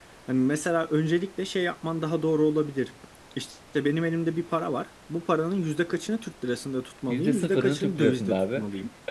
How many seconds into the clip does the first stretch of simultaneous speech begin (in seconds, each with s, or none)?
7.1 s